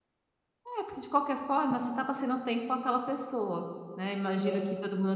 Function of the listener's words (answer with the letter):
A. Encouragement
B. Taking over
A